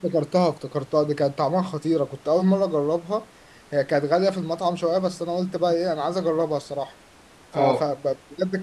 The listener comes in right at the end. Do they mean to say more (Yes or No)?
No